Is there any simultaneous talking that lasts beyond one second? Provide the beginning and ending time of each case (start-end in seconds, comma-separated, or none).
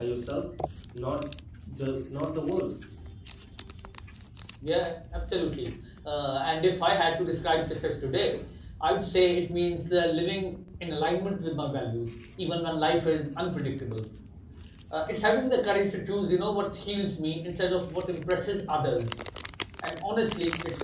none